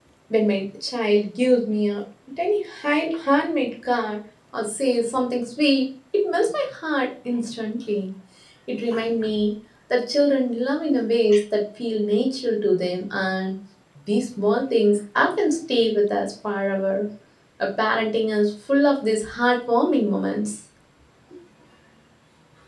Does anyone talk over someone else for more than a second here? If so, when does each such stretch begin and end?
none

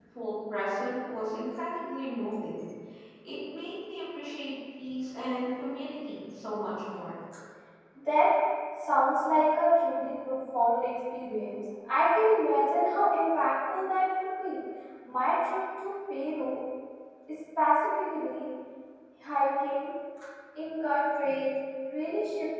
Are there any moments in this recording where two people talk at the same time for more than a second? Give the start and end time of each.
none

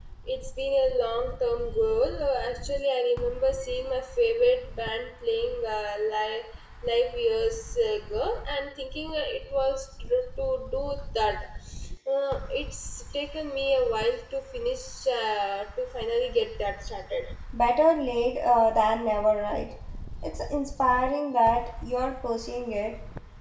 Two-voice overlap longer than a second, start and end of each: none

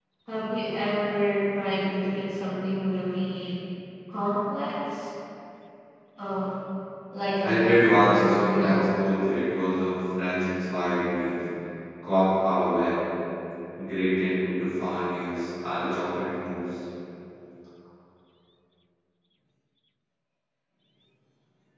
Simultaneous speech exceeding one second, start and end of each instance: 7.4-8.9

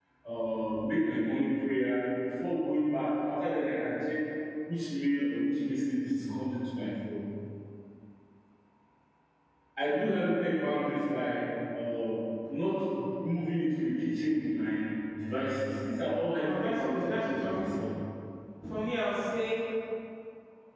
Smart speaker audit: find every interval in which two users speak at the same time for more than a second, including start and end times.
16.4-17.8

